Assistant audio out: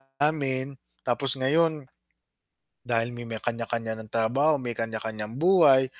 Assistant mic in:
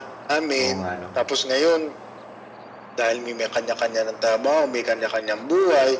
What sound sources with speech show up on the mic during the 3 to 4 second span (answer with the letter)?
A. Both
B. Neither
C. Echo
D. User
C